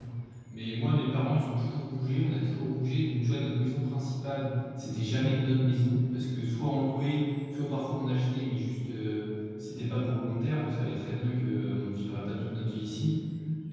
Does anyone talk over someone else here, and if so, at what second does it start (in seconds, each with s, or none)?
none